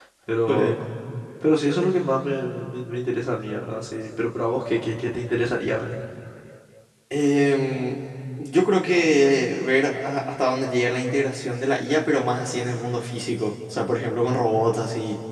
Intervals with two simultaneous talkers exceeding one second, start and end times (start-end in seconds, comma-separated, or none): none